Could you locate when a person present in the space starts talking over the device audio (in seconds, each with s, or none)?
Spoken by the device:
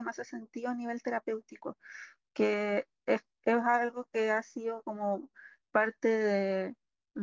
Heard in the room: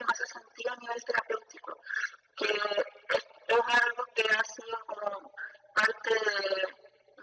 none